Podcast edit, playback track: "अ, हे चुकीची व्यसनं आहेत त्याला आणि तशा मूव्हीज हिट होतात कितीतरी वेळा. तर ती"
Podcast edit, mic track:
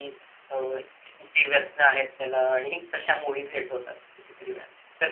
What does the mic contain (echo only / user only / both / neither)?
echo only